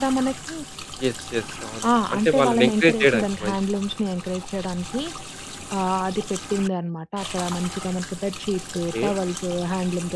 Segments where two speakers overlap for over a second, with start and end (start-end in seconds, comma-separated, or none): 2.1-3.5